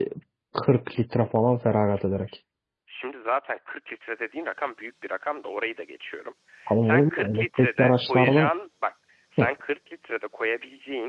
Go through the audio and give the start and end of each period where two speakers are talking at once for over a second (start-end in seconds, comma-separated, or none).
6.8-8.5